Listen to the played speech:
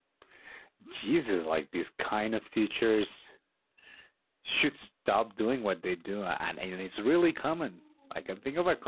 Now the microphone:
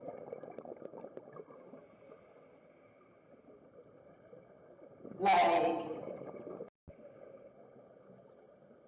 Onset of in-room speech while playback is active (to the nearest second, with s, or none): 5 s